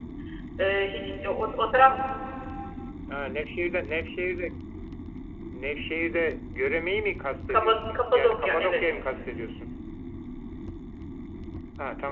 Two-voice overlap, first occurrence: 7.5 s

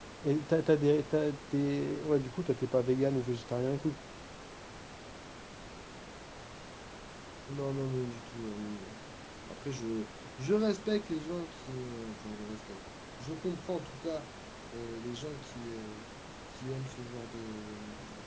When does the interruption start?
none

